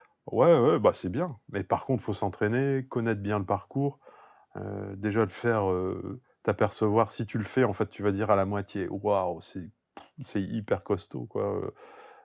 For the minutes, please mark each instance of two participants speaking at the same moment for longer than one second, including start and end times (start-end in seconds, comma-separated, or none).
none